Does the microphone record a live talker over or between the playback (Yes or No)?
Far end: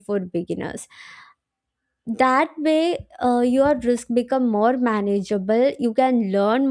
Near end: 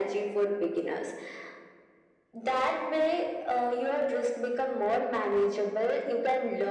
No